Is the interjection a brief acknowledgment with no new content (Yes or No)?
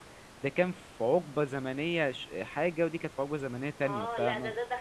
No